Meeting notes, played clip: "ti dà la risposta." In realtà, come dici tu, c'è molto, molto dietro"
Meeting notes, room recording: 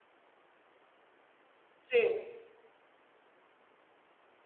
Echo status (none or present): none